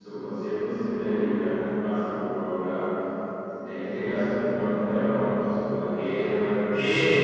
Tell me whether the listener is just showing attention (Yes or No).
No